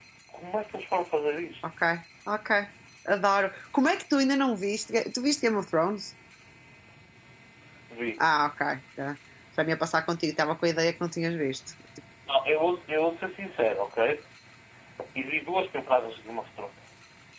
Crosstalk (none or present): none